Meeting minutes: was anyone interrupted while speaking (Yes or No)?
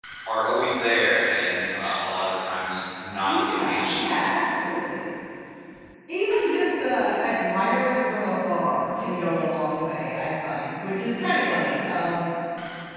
Yes